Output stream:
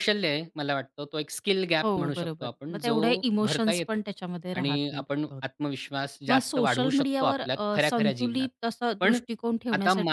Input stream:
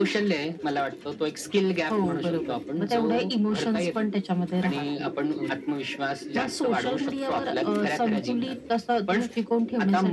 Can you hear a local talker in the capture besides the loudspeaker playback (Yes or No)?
No